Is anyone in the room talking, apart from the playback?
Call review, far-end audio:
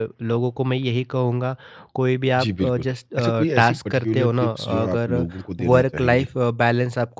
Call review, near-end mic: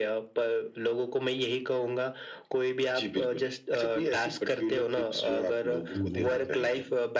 Yes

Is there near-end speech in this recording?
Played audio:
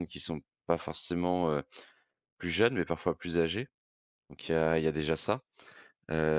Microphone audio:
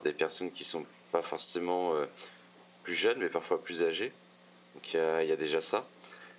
No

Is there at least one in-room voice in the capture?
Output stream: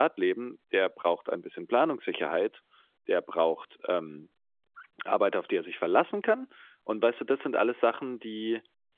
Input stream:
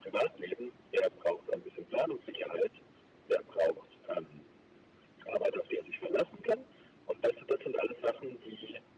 No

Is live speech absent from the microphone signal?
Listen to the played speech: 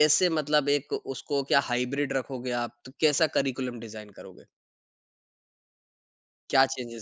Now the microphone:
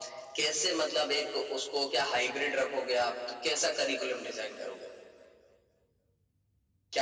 Yes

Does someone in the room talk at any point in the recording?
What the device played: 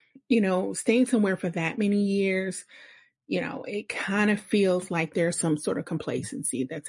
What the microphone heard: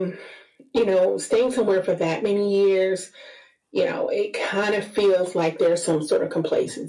No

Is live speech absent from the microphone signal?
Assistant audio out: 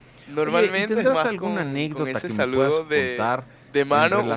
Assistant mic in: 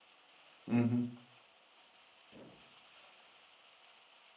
No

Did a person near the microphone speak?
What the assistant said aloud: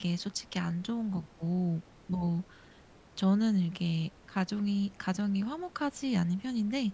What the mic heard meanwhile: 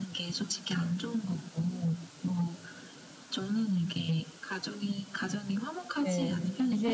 Yes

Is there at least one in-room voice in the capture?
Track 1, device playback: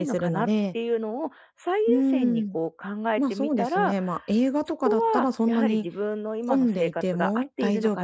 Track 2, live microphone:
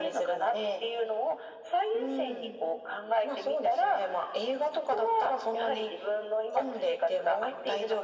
No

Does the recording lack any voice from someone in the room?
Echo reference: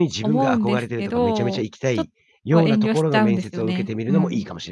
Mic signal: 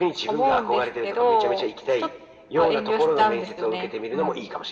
Yes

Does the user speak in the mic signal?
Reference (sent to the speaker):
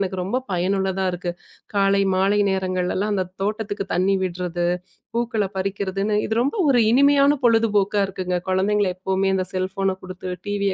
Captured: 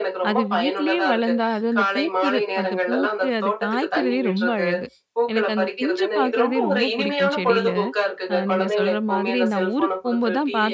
Yes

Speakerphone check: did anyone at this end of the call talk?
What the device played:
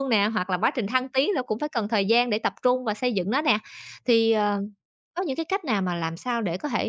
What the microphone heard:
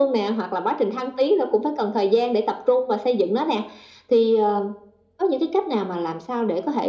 No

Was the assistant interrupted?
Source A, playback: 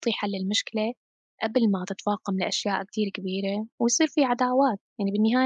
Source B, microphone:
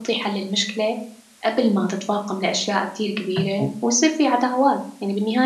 Yes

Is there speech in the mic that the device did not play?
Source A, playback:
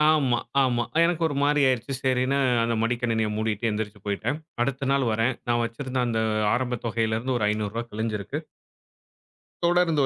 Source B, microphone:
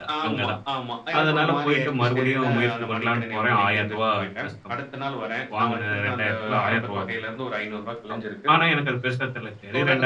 Yes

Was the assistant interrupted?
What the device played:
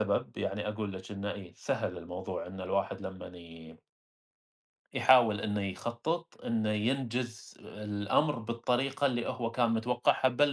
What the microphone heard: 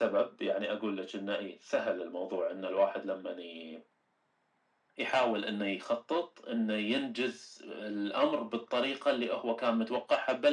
No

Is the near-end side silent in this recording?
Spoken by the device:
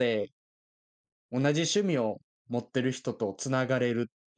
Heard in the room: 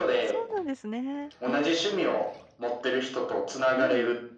No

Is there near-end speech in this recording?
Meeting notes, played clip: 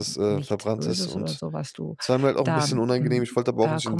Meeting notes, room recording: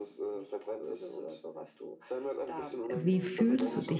Yes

